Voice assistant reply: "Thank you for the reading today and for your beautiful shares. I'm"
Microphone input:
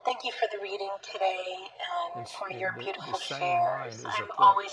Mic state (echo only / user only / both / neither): both